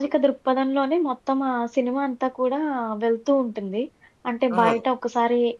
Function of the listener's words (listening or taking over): listening